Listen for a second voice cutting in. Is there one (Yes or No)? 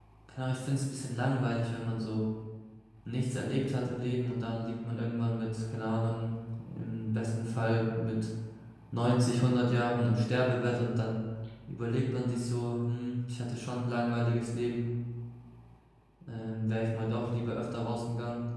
No